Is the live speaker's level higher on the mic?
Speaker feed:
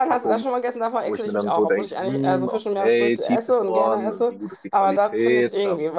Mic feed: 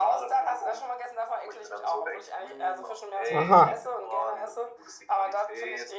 Yes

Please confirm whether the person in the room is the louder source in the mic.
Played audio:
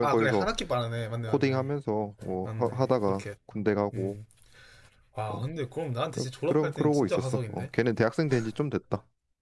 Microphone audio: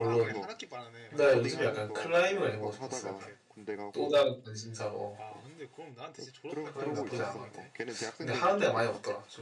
Yes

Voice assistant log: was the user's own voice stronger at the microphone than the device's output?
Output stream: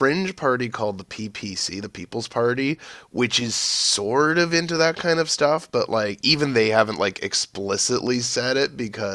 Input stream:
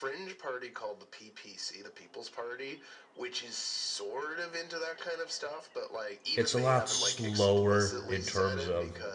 Yes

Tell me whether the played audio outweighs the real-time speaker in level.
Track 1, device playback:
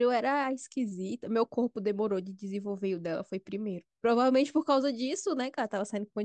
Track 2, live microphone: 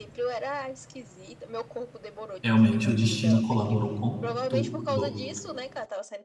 No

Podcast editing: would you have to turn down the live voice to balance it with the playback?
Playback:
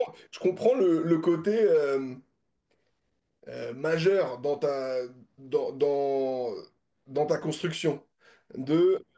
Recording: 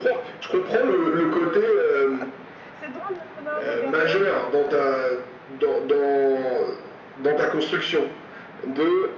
No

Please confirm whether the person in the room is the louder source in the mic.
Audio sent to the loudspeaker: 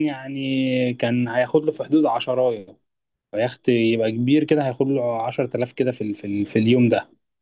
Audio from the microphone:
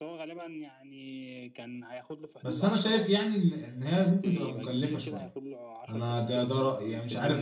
Yes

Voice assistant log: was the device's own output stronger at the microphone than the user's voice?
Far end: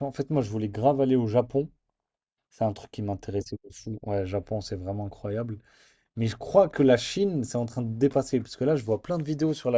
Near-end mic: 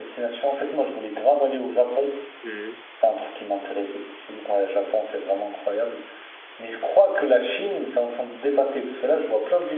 Yes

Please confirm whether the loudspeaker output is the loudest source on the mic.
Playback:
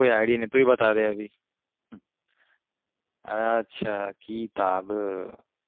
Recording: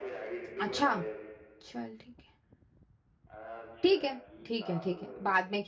No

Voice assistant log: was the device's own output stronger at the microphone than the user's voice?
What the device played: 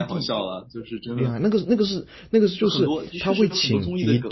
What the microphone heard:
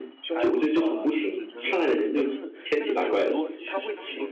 No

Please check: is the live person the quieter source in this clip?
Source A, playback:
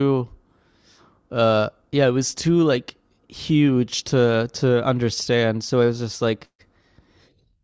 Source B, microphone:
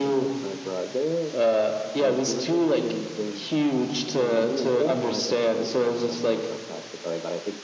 Yes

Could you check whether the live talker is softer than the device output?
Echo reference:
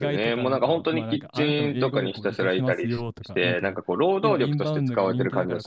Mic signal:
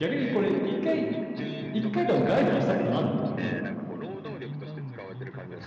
No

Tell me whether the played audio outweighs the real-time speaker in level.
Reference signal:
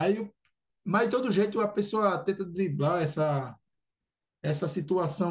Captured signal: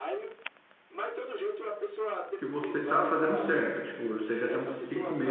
No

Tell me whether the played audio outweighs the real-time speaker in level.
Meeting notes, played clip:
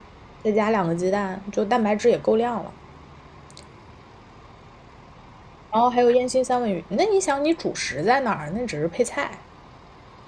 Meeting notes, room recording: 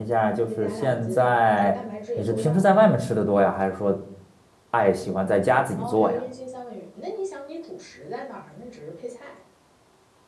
No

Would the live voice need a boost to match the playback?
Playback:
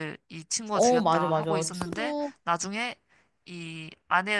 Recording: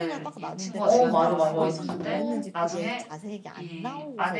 Yes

